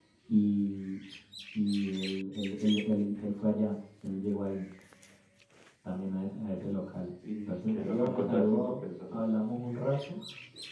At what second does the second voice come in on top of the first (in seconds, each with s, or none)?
7.2 s